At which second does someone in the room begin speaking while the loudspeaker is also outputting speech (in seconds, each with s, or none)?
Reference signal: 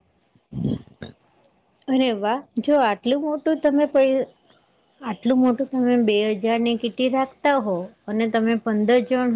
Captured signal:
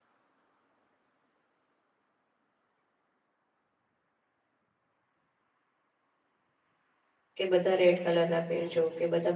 7.3 s